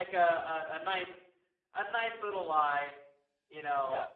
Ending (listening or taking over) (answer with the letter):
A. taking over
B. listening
A